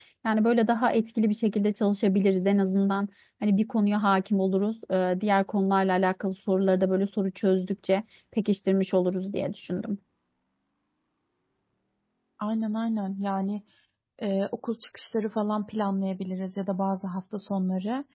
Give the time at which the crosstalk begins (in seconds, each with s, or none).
none